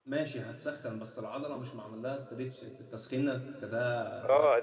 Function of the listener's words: taking over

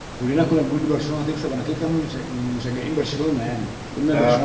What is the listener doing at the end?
listening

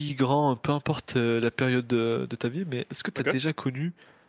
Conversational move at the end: listening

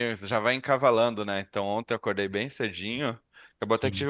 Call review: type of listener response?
listening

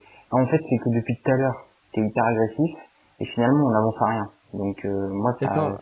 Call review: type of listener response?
taking over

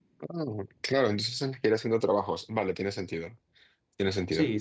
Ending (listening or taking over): taking over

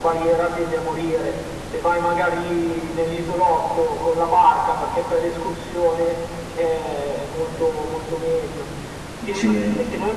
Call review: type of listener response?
listening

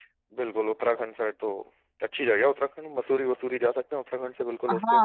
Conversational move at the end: taking over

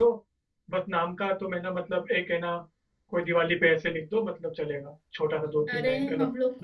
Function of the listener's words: taking over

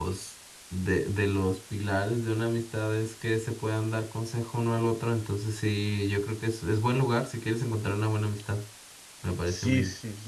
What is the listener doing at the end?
taking over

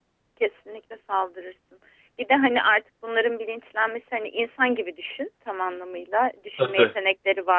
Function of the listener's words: listening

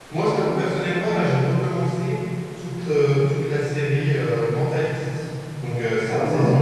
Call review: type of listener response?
listening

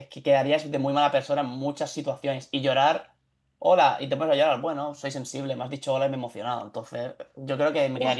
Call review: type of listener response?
taking over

